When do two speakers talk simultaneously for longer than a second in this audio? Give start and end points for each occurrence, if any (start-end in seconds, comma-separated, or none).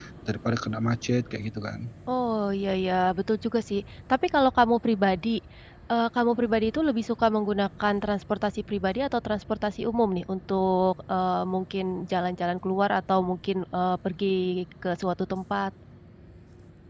none